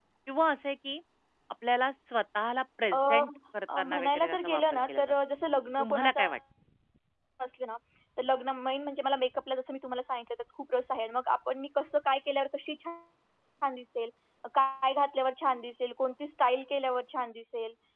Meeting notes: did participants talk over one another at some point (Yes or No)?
Yes